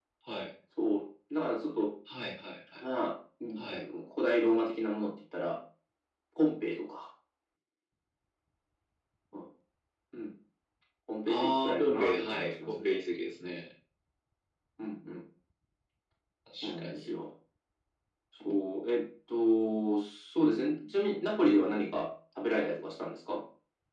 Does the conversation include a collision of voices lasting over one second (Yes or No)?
Yes